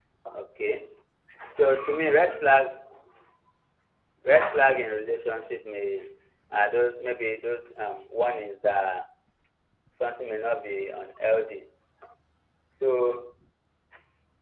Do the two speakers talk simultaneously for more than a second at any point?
No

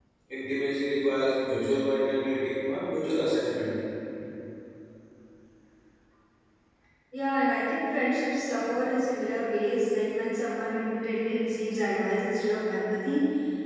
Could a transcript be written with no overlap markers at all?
Yes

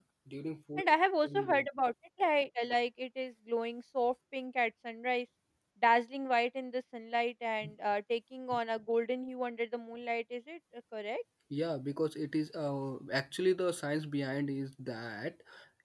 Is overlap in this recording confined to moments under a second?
Yes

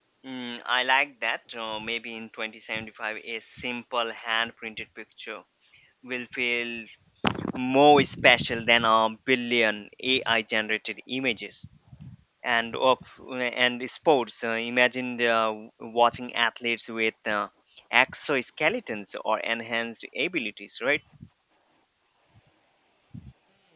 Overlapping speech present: No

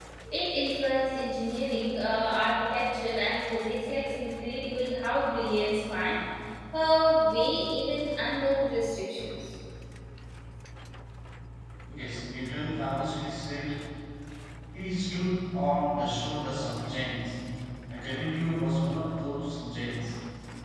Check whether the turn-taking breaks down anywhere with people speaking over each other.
No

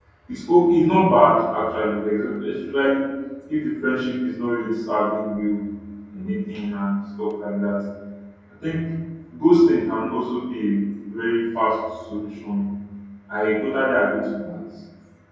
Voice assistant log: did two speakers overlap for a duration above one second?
No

